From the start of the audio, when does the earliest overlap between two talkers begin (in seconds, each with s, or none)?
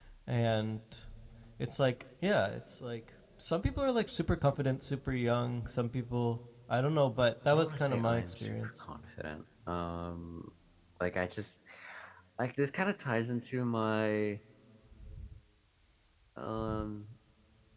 7.5 s